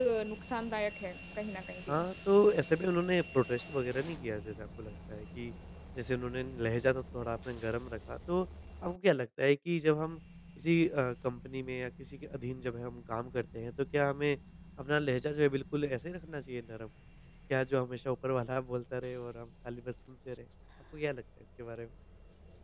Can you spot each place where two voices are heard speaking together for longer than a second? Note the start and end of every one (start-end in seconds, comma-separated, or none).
none